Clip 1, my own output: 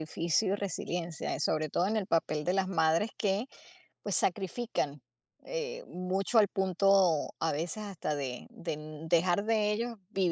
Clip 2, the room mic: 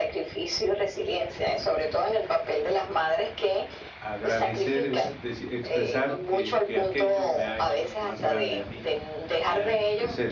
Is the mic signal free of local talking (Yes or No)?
No